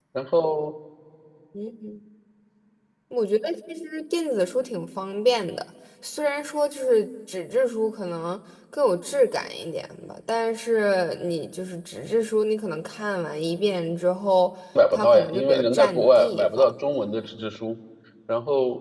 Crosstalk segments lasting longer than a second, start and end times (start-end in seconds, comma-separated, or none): 14.9-16.7